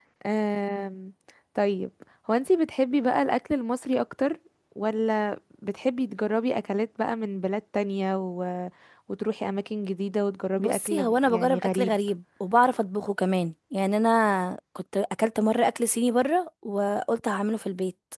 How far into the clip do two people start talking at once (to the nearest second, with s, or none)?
11 s